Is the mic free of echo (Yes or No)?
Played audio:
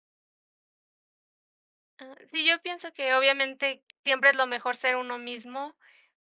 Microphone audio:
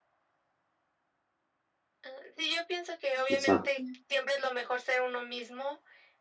No